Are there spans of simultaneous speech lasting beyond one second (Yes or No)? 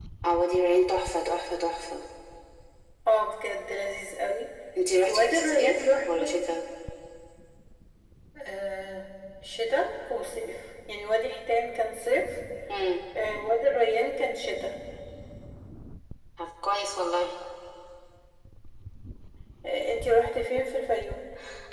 Yes